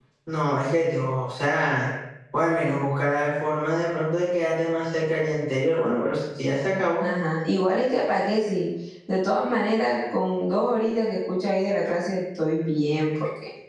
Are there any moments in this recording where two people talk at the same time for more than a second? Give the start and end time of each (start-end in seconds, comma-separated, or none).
none